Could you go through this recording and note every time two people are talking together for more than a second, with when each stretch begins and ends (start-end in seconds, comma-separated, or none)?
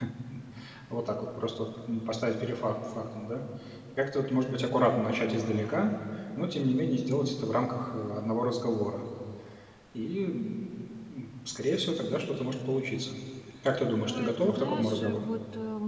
14.0-15.3